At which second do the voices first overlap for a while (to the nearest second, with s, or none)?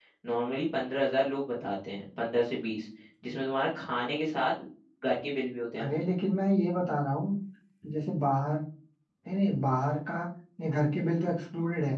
none